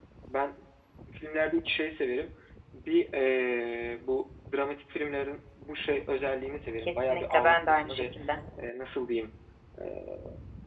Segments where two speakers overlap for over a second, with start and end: 6.8-8.0

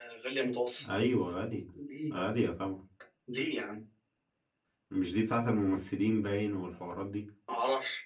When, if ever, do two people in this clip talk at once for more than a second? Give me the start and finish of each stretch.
none

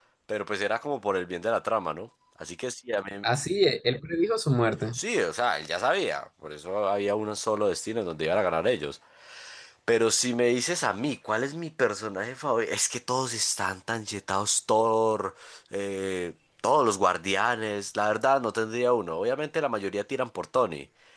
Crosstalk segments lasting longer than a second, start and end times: none

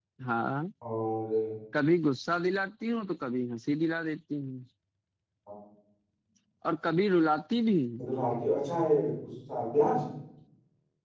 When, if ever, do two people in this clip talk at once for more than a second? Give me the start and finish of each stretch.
none

